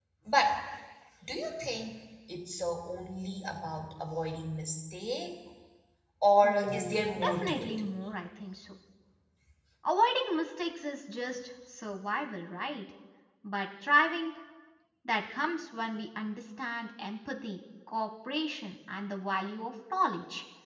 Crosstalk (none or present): present